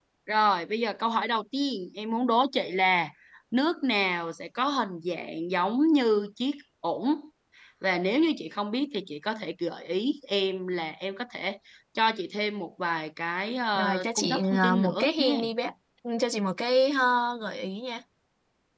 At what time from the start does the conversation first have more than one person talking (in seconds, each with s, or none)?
13.8 s